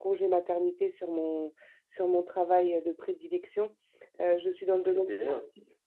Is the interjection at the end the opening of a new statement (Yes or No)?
No